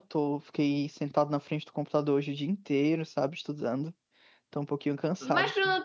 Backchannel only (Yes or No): No